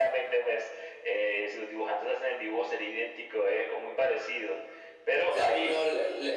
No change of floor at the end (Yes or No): No